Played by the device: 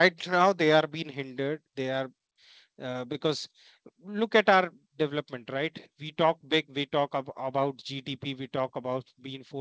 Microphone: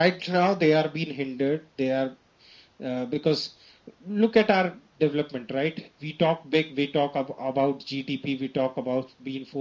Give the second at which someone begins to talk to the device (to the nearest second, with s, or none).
none